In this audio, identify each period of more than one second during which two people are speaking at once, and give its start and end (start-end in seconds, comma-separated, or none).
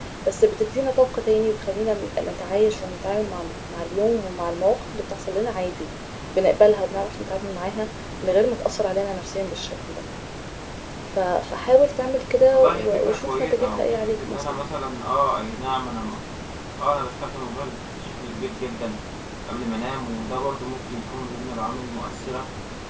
12.5-14.6